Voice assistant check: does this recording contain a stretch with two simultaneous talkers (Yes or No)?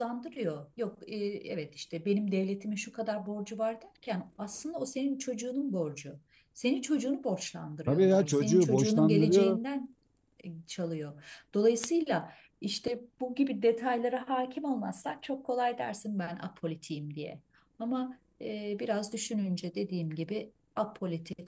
Yes